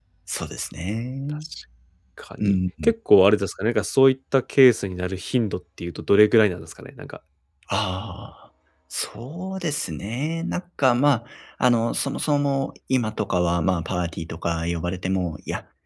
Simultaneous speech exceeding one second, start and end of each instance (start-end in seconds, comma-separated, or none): none